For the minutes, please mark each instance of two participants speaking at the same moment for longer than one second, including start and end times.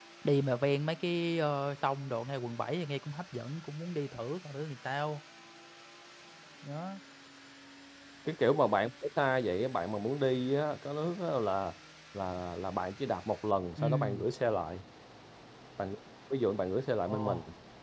none

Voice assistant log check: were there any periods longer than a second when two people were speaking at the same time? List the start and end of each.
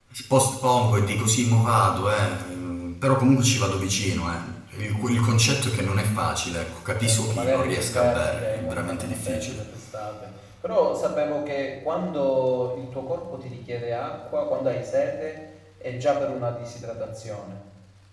7.0-9.6

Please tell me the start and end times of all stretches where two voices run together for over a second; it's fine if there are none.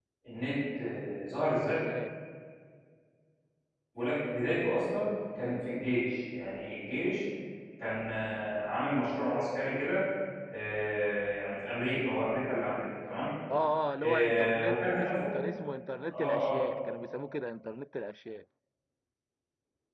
14.0-15.4

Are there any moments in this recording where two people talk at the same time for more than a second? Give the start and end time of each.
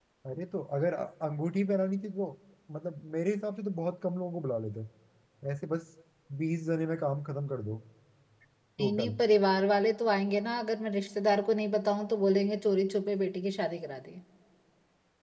none

